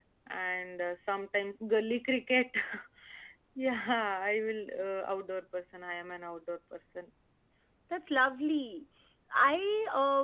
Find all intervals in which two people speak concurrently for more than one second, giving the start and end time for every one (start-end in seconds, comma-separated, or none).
none